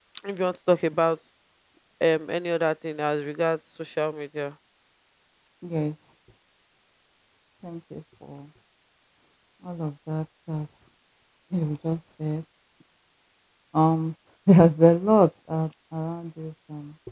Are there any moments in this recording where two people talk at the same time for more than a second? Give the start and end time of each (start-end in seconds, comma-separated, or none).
none